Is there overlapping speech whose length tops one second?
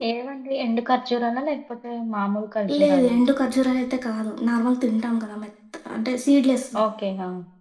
No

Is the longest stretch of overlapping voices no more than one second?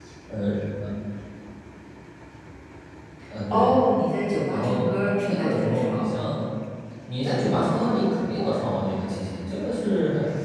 No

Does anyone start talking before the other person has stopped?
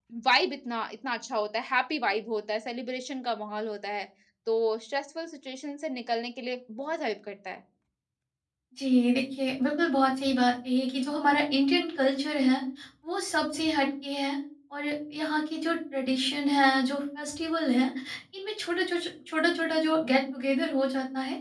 No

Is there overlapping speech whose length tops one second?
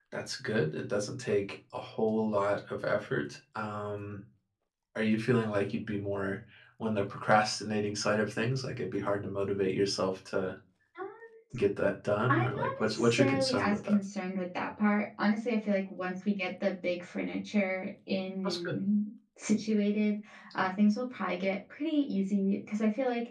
Yes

